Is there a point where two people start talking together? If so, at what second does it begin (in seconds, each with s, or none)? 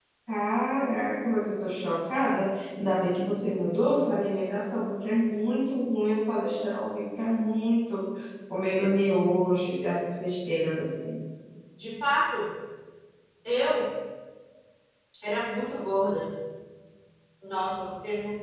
none